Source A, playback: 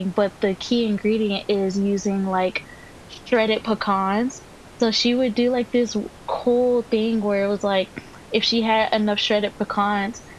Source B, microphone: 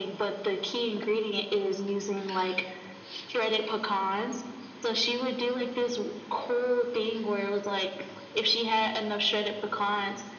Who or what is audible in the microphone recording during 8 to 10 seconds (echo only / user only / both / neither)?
echo only